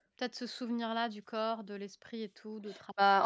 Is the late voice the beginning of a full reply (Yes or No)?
Yes